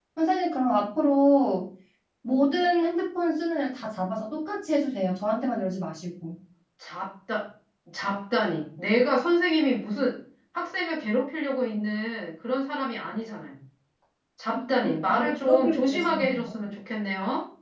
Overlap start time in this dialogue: 14.5 s

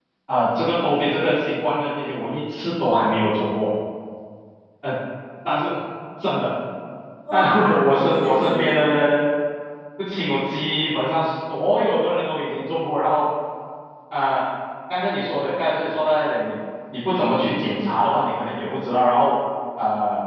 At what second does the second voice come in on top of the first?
7.3 s

